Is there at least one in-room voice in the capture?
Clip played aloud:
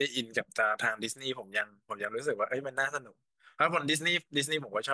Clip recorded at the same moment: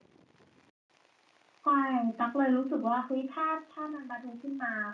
Yes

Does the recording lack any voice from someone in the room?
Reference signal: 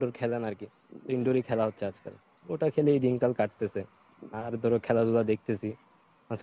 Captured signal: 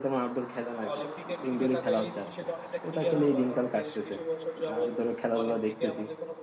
No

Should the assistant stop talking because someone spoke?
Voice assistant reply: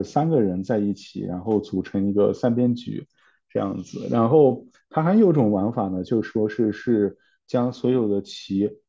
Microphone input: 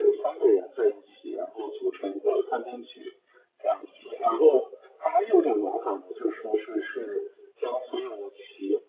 No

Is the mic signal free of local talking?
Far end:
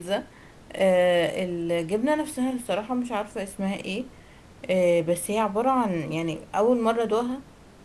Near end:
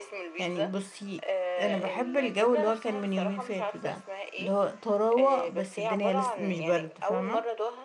No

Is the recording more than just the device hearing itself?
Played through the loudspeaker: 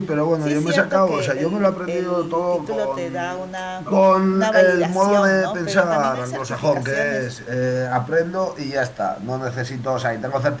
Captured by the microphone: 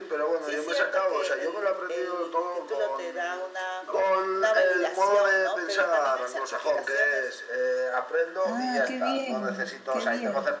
Yes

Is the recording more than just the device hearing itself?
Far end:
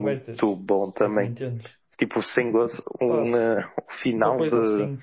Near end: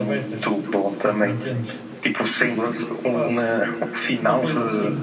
No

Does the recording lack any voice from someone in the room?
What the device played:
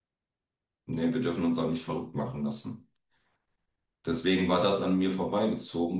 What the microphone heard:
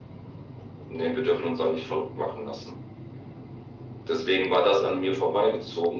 Yes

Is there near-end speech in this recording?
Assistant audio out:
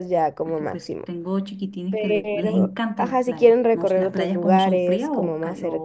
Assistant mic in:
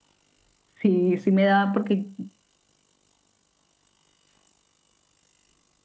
Yes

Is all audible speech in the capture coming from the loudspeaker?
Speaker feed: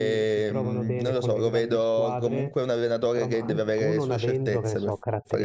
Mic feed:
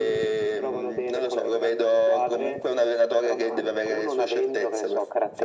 Yes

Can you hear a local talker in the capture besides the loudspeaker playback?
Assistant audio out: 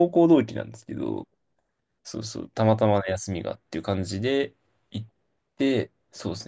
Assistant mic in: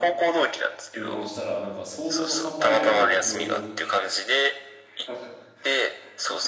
Yes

